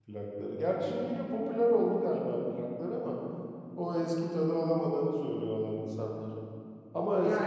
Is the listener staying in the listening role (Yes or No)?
Yes